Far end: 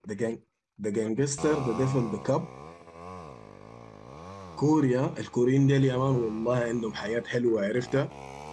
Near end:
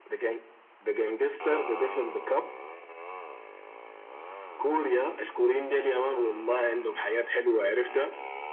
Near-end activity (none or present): none